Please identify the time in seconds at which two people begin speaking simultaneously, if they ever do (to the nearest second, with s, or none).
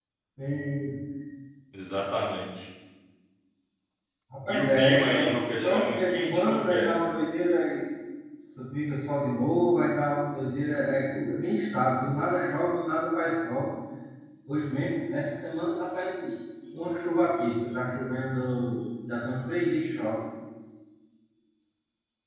4 s